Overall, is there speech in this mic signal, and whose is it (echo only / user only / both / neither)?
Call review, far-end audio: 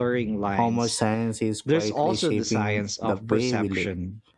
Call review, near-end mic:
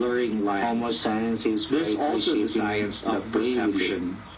echo only